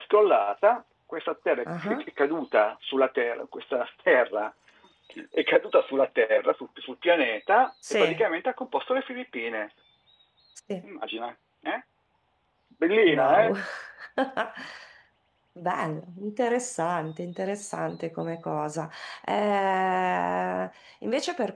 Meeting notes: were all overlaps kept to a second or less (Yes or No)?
Yes